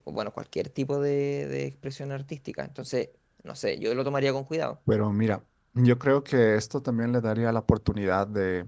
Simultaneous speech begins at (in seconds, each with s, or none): none